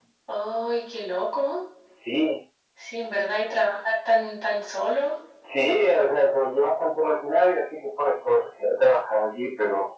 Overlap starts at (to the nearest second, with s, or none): none